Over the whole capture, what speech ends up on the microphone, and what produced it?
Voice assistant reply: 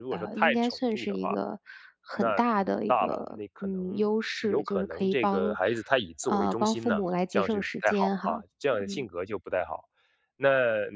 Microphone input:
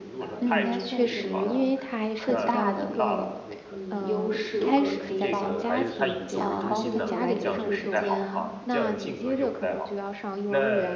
both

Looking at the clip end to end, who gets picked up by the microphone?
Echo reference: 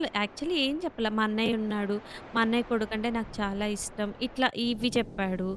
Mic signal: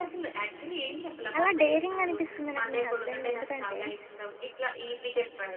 both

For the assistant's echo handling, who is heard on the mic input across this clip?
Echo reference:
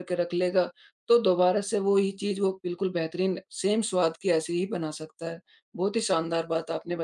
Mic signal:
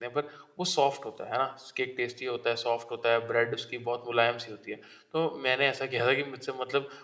user only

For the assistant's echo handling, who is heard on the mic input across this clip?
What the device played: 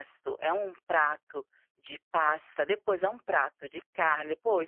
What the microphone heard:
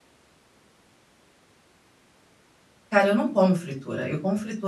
user only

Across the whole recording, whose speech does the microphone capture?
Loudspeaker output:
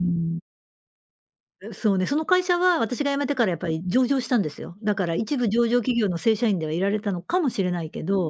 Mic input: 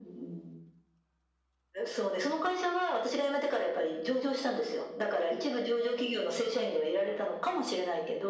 echo only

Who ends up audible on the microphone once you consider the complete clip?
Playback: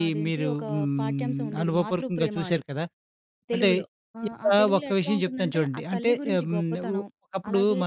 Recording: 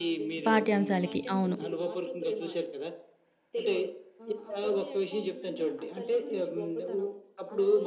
both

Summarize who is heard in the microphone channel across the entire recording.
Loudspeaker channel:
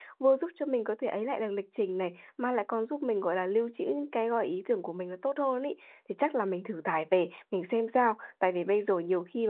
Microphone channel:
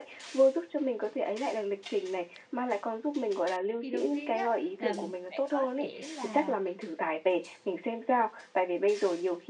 both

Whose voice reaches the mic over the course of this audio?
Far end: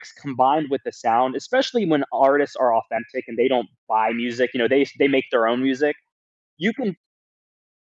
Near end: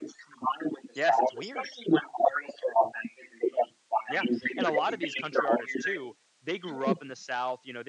both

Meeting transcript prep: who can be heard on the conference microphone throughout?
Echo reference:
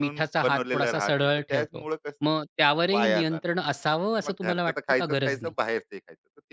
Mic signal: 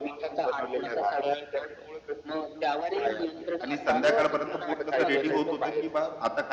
both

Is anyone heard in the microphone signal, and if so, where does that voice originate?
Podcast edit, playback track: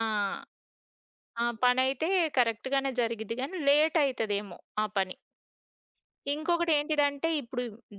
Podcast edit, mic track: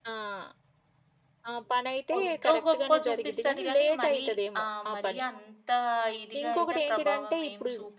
both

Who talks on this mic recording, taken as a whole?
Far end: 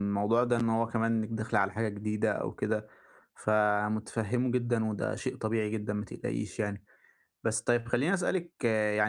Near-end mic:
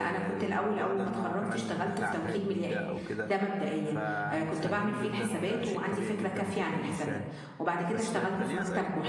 both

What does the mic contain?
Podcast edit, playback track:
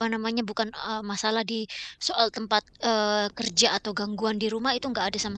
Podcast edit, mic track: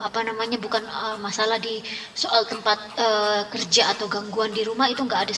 echo only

